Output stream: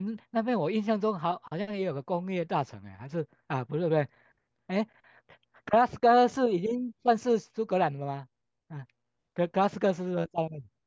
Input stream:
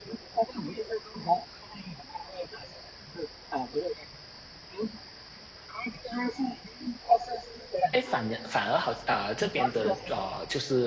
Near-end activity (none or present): present